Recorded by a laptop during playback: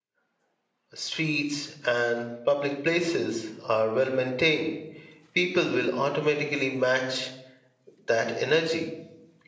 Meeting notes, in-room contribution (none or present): present